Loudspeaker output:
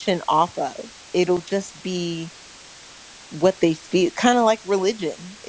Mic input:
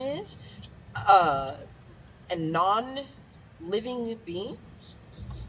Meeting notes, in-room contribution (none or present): present